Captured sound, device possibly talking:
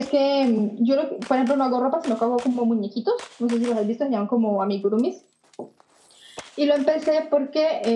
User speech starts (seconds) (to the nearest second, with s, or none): none